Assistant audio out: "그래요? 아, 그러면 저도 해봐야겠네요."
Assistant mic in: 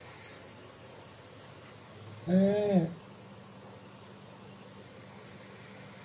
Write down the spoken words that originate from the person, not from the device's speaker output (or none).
음.